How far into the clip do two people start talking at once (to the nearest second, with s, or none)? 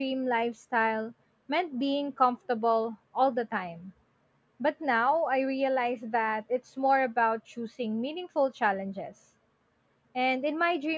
none